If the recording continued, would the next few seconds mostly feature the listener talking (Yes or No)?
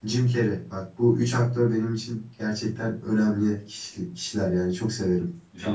Yes